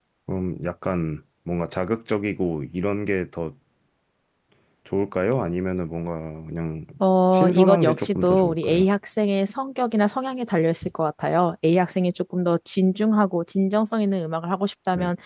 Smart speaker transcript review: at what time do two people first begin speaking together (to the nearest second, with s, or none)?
7 s